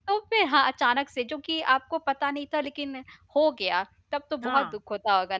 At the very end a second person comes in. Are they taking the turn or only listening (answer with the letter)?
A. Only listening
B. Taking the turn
A